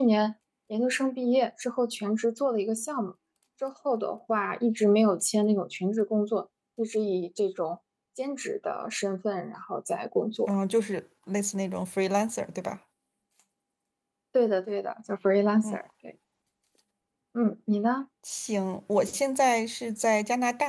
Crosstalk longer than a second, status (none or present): none